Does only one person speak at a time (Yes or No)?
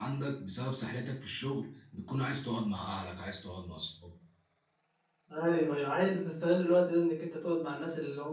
Yes